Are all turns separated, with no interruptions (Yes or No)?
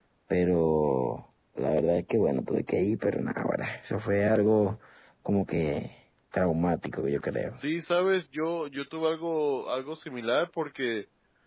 Yes